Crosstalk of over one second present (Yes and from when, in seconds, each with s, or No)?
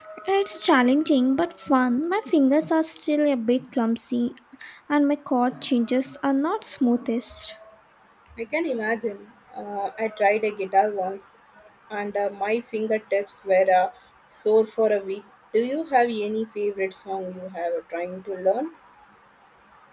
No